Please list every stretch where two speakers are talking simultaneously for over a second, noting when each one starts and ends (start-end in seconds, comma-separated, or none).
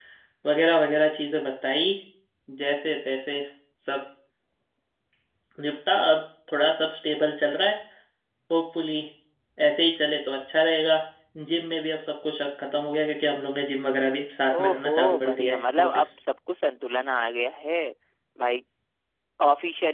14.5-16.1